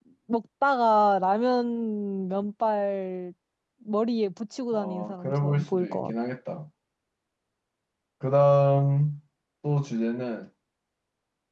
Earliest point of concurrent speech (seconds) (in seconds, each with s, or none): 4.7 s